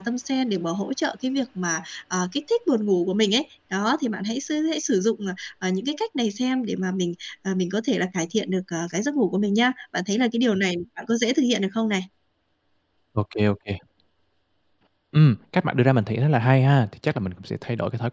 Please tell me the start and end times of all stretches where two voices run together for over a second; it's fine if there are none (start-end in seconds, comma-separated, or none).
none